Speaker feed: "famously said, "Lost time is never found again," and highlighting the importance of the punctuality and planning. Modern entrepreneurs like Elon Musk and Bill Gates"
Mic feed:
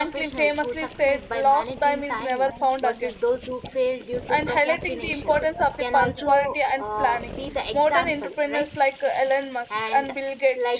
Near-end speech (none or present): present